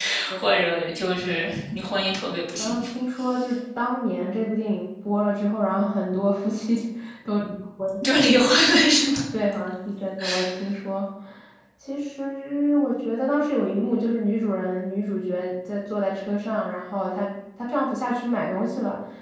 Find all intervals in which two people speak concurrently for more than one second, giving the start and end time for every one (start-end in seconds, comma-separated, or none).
none